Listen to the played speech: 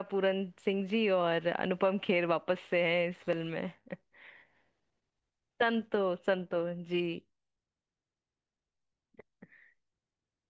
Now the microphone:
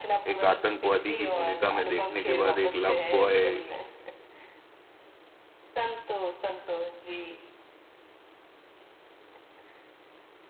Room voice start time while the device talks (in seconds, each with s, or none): 0.3 s